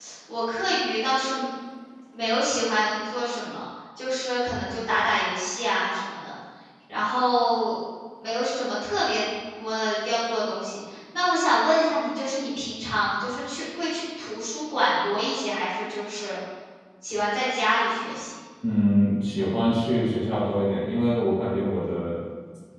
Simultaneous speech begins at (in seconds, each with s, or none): none